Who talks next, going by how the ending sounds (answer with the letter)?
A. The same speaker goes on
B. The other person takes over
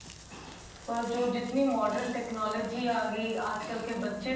A